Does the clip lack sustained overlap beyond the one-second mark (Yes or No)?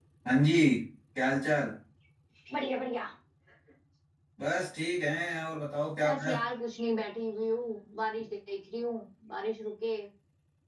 Yes